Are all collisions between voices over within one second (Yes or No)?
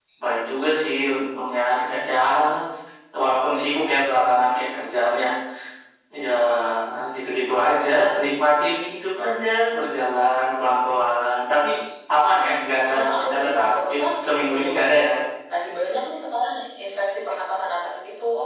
No